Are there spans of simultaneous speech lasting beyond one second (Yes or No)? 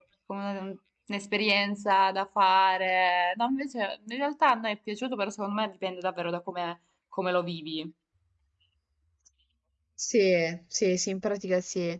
No